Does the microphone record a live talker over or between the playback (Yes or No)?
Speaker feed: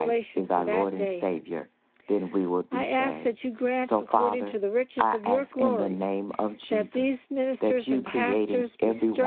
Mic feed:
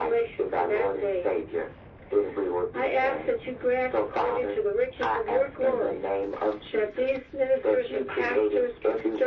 No